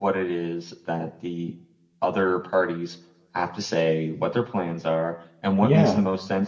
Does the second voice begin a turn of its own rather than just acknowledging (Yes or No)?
No